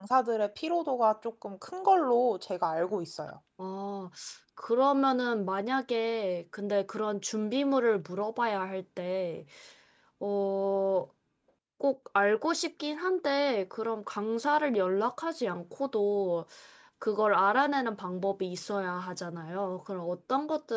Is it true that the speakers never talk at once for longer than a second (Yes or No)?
Yes